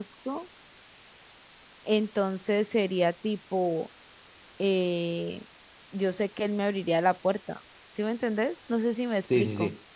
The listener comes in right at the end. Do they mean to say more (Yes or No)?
Yes